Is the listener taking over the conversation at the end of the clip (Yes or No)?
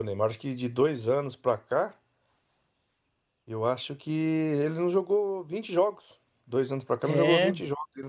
No